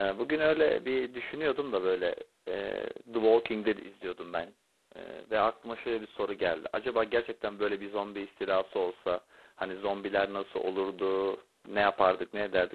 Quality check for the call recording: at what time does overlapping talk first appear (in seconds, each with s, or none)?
none